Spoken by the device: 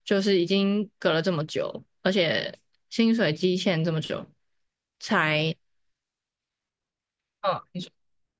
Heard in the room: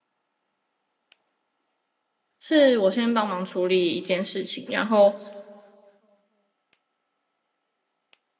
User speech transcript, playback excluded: 是我先帮忙处理一件事情，然后

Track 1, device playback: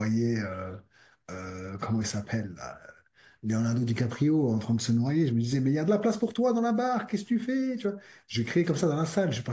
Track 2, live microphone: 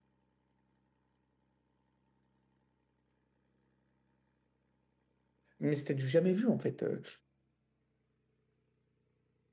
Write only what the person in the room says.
Mais c'était du jamais vu en fait, euh,

